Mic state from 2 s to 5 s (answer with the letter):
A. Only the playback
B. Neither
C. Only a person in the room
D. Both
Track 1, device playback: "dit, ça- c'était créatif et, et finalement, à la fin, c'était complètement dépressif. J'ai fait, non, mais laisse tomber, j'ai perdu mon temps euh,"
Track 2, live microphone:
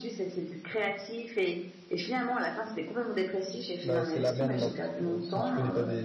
D